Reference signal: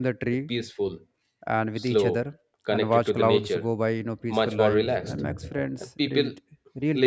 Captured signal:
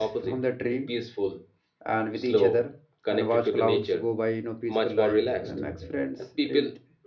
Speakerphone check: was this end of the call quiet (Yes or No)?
Yes